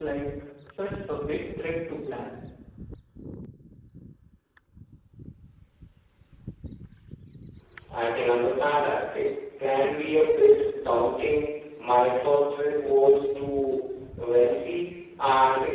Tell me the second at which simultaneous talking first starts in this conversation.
none

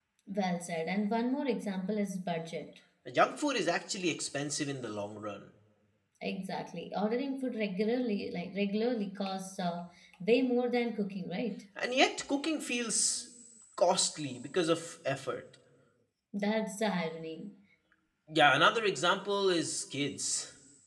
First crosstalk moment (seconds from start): none

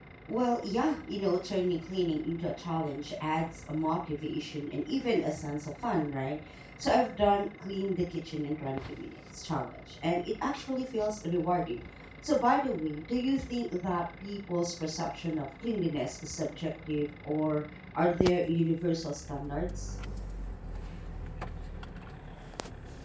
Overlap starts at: none

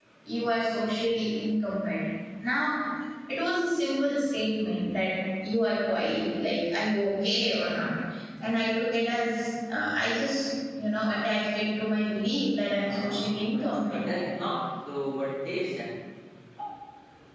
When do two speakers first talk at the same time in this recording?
12.8 s

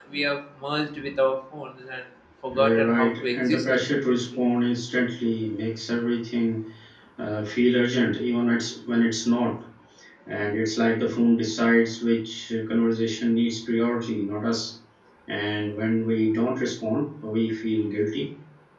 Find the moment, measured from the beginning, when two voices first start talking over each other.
2.5 s

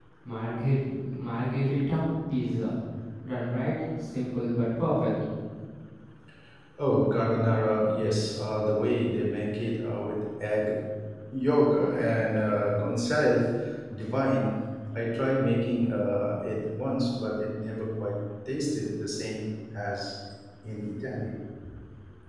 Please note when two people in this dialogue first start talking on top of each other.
none

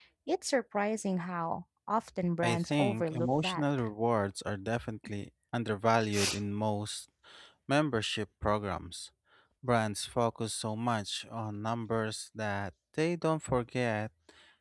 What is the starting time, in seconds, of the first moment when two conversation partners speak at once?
2.4 s

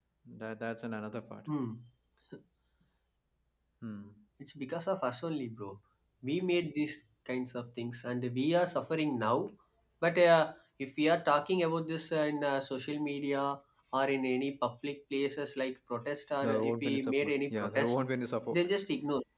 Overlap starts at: 16.4 s

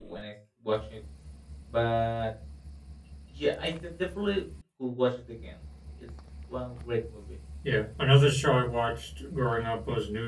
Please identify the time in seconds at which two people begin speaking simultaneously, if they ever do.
none

